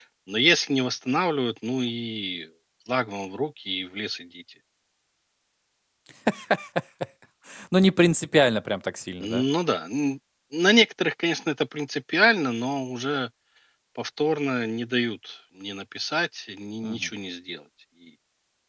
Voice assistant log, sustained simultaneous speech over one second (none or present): none